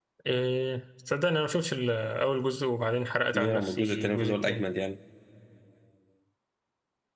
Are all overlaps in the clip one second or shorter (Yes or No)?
No